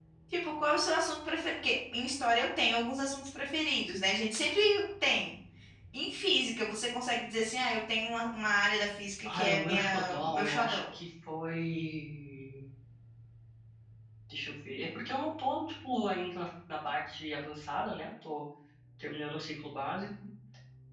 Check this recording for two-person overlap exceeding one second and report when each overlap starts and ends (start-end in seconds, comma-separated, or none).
9.2-10.8